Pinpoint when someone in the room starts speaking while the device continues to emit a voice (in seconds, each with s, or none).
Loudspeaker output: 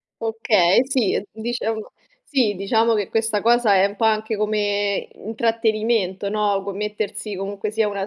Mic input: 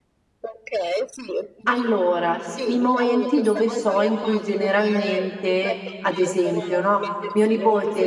1.7 s